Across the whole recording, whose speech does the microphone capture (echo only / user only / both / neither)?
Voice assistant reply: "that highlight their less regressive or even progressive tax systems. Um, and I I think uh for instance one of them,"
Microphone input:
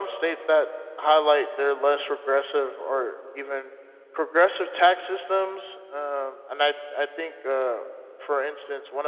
echo only